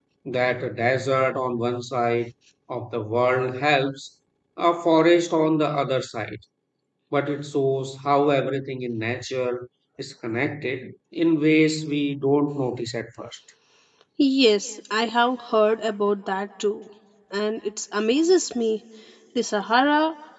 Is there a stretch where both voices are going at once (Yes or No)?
No